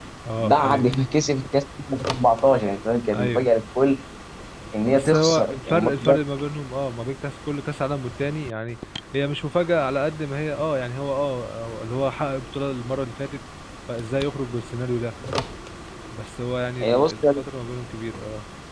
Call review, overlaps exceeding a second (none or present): present